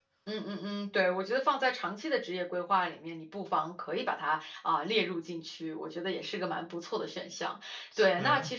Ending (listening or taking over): listening